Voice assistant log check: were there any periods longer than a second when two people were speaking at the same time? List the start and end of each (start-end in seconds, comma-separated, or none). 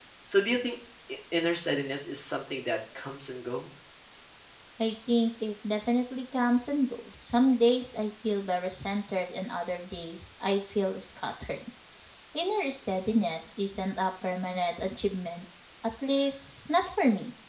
none